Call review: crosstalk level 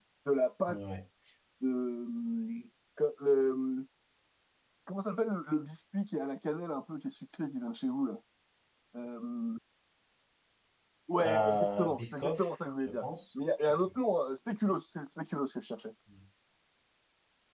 present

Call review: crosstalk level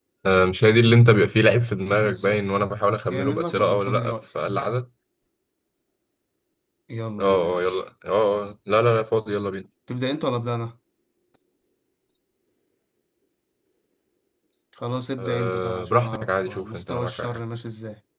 present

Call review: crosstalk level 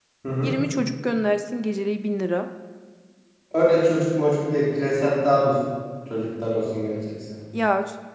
none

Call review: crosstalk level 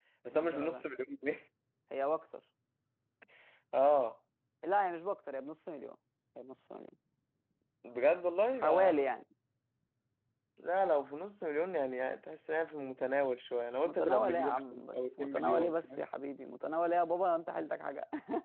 present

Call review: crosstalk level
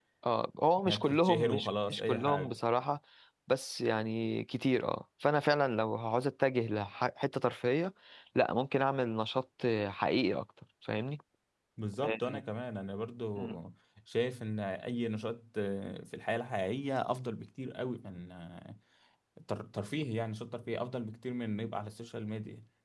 present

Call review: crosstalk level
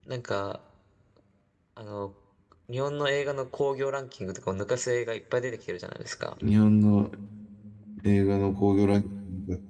none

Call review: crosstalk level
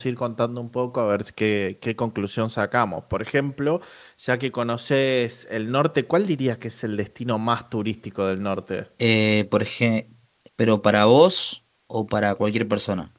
none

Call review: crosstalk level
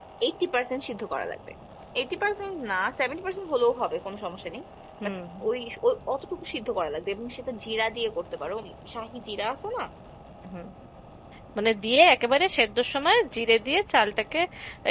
none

